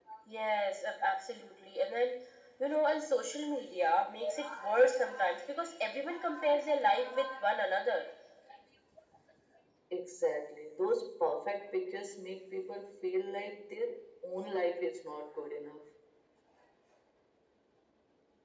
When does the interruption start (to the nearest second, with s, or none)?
none